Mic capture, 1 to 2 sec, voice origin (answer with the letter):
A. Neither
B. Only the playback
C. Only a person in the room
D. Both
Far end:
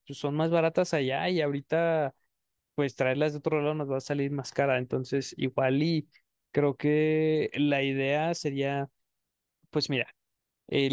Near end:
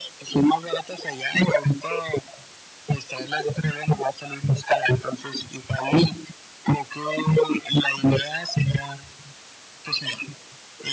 B